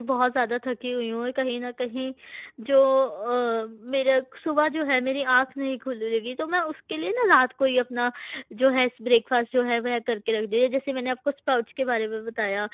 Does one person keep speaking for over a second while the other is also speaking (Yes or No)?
No